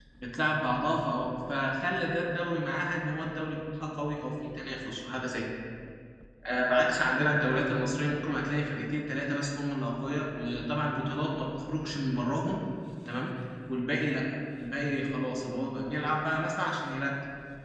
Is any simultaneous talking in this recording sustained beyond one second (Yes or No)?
No